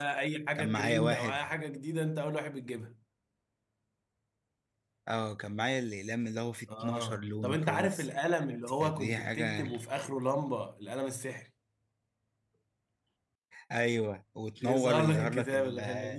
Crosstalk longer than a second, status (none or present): present